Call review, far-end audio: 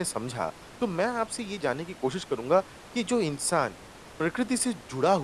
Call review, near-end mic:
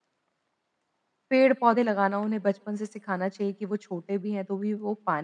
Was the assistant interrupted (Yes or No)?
Yes